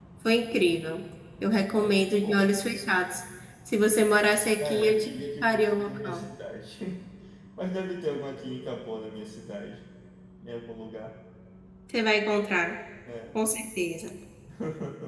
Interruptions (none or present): present